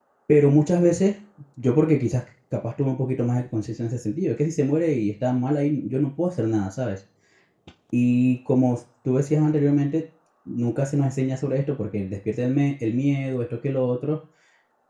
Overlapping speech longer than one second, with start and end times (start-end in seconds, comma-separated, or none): none